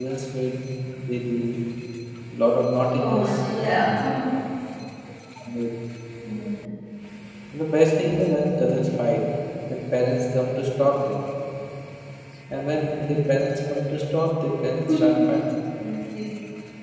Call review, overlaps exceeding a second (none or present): present